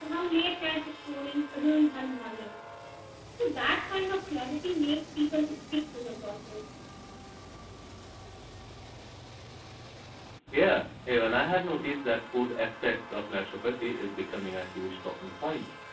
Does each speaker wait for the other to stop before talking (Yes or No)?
Yes